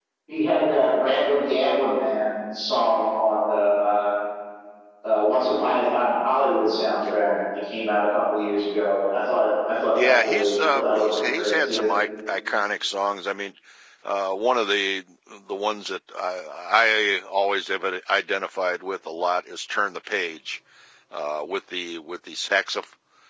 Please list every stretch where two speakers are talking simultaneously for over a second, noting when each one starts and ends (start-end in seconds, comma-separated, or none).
9.9-11.9